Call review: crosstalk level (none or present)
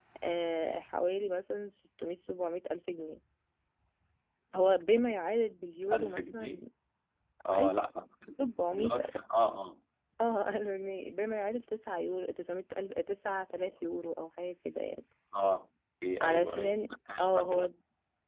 present